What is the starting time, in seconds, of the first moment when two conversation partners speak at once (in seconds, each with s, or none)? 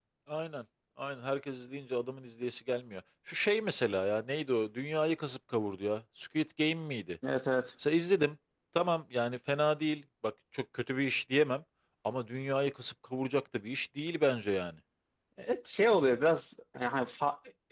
none